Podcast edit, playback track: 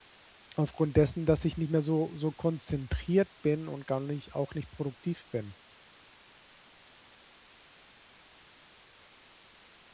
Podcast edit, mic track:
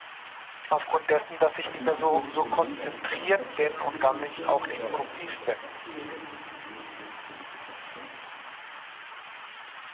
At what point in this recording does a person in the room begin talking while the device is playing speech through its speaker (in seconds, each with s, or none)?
1.6 s